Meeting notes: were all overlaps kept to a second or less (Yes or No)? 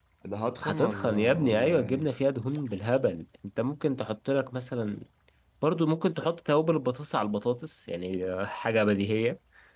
No